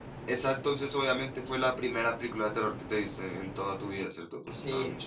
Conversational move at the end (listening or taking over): taking over